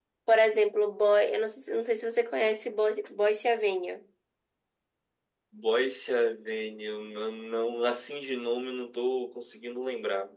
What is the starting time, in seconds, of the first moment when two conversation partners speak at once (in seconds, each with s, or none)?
none